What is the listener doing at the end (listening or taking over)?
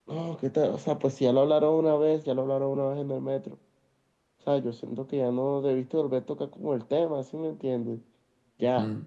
taking over